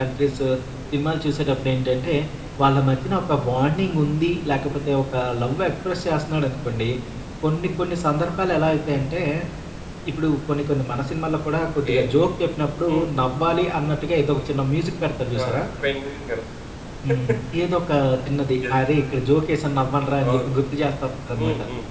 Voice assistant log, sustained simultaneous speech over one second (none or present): none